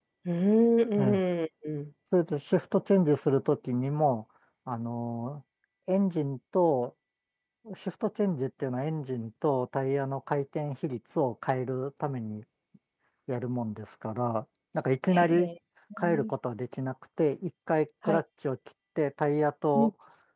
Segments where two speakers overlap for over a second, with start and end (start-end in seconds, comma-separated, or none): none